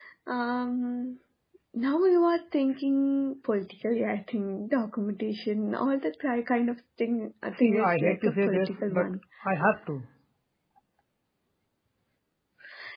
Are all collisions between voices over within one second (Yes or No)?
No